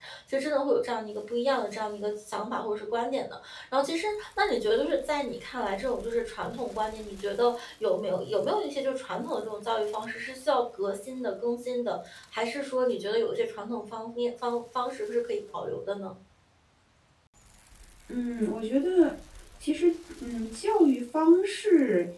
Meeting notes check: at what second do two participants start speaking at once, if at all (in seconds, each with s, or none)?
none